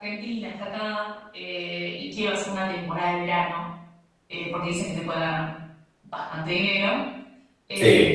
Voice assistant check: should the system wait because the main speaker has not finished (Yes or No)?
Yes